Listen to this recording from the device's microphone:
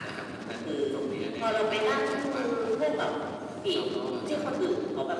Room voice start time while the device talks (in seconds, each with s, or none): none